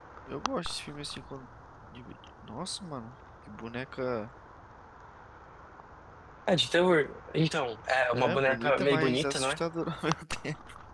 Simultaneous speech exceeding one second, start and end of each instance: 8.1-9.6

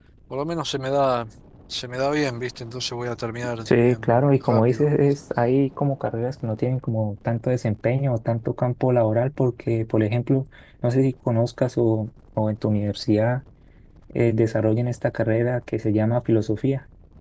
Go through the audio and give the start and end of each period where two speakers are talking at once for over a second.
3.6-4.9

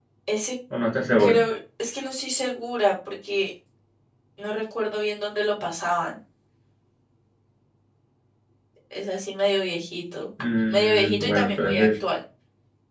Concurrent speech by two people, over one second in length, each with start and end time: 10.7-12.0

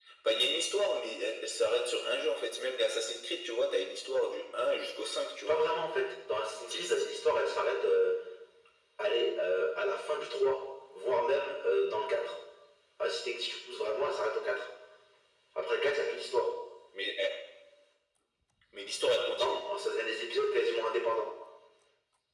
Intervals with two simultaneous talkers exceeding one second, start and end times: none

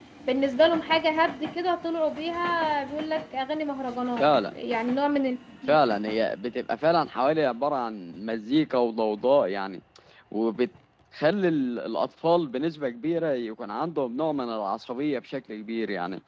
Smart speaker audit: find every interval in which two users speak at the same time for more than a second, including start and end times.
none

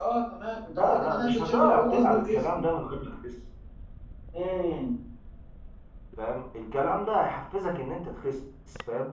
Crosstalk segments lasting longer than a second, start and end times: 0.6-2.6

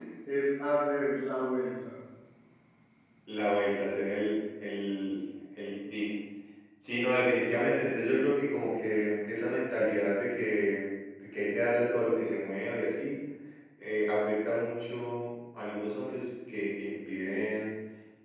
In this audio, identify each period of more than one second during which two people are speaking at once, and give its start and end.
none

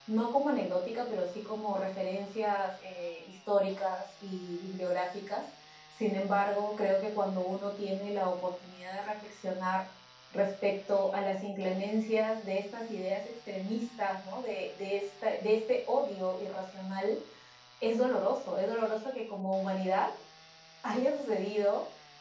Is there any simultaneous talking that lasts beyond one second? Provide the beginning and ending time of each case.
none

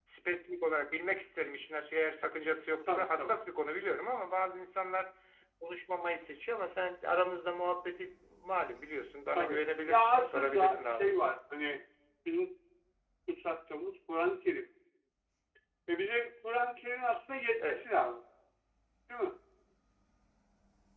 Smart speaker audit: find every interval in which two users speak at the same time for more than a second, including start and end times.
9.4-11.2

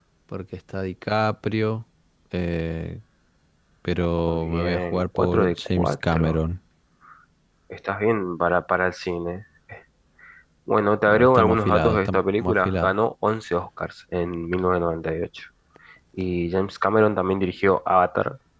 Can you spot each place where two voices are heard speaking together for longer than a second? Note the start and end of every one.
4.3-6.4, 11.1-12.9

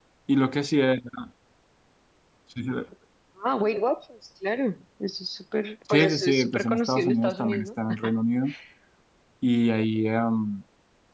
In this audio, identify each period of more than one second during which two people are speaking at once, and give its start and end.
5.9-7.7

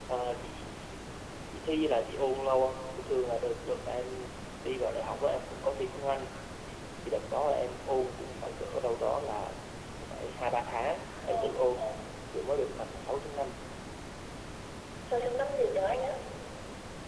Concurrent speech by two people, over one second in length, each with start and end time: none

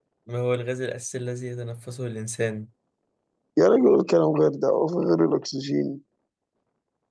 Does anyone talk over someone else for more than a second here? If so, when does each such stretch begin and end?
none

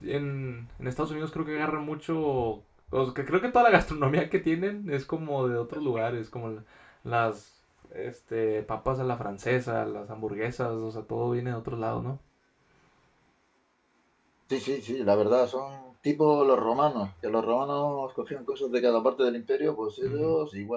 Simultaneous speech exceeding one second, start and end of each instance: none

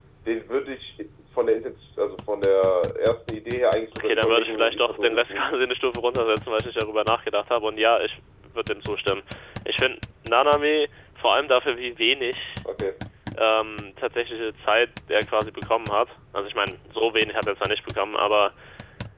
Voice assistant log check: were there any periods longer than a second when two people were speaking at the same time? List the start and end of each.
4.0-5.5

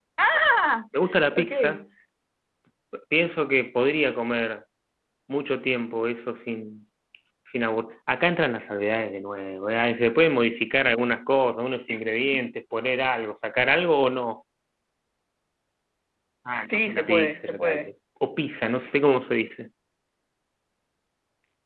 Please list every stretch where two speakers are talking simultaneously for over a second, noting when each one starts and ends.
16.7-17.9

